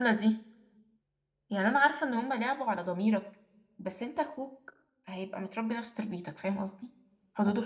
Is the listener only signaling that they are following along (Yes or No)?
Yes